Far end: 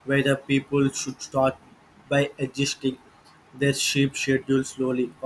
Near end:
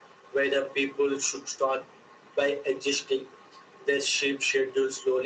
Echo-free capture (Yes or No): No